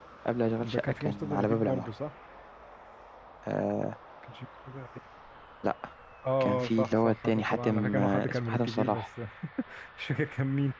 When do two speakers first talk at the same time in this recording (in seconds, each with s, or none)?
0.6 s